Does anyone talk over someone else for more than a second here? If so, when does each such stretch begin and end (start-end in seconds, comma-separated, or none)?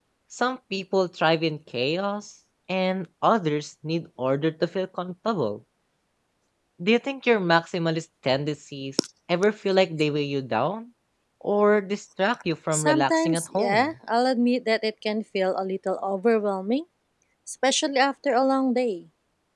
12.7-13.9